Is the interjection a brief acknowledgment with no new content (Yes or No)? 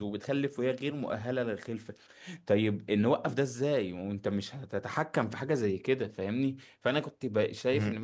Yes